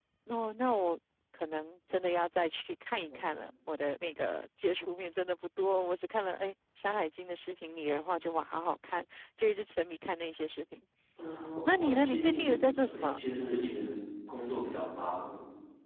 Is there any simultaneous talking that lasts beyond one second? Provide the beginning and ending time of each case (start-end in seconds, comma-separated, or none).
11.8-13.2